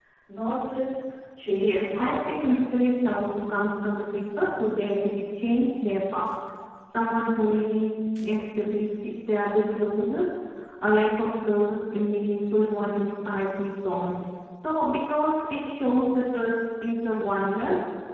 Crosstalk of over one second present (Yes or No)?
Yes